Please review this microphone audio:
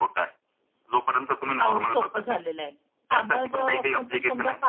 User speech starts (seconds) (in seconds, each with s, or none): 1.6 s